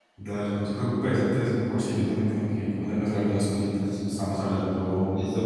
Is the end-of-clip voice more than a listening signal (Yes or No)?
Yes